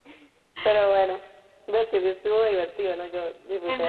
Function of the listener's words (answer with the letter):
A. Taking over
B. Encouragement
A